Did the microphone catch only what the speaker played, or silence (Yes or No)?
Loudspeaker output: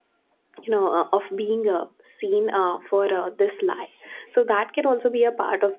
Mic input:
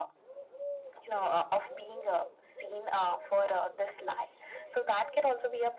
Yes